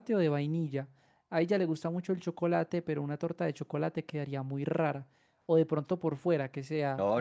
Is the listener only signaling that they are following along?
No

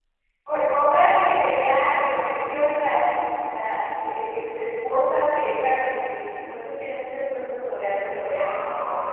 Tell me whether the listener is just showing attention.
No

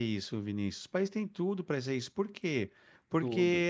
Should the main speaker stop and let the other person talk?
No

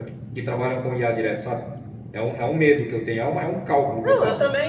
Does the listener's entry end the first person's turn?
Yes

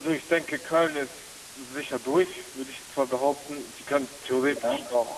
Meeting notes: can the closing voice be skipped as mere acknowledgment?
Yes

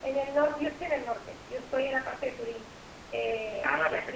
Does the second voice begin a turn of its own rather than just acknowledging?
No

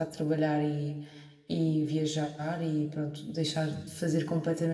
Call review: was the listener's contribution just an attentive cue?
Yes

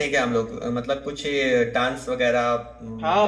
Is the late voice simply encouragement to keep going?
No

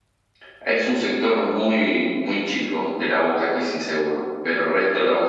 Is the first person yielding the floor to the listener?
No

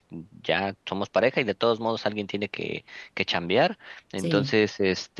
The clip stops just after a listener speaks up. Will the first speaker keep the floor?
Yes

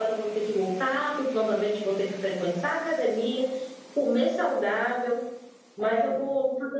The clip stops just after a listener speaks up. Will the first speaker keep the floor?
Yes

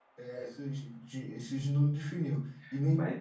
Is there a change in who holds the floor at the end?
No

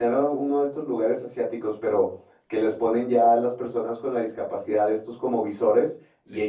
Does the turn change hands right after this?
No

